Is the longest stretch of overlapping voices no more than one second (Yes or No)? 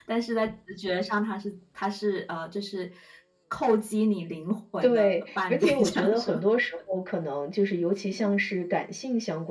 No